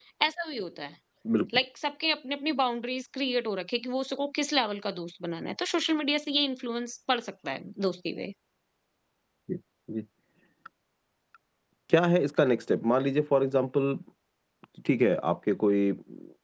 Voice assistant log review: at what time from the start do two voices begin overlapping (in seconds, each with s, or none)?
none